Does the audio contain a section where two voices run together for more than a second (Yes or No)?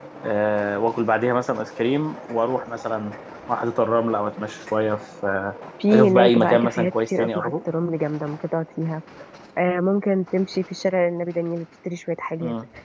Yes